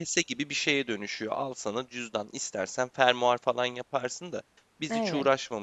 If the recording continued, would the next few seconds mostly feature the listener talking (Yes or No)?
No